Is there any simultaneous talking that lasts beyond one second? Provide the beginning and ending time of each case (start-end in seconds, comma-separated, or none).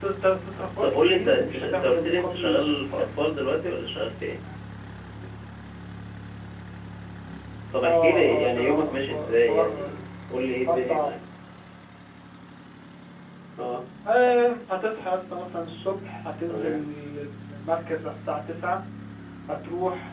0.8-3.0, 7.8-10.0